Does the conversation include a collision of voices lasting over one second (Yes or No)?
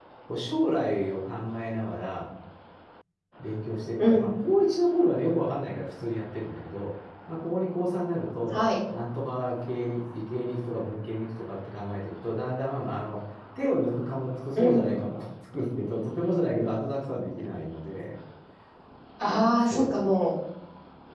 No